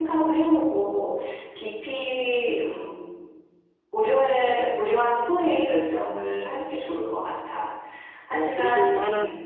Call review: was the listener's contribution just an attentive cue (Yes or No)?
No